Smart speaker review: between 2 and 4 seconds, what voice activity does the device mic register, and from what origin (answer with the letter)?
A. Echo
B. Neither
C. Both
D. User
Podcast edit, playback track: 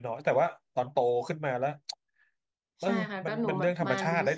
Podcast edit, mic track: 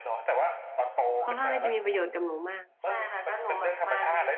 C